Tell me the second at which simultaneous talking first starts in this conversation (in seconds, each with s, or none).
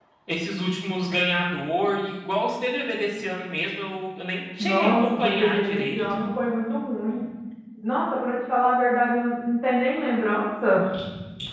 4.6 s